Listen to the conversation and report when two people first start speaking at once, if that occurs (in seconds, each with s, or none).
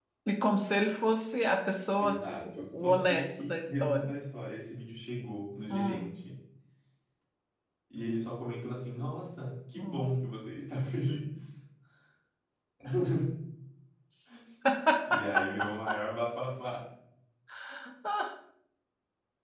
2.0 s